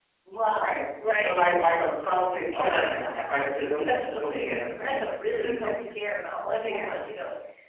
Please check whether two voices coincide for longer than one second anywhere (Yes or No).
Yes